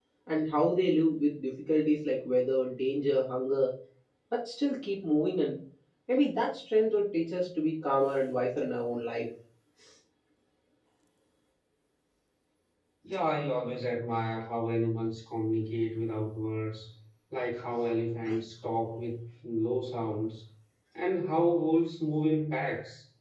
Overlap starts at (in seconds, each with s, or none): none